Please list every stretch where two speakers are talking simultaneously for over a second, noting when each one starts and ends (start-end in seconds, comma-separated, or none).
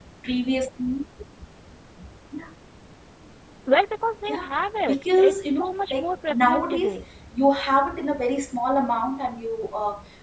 4.8-6.9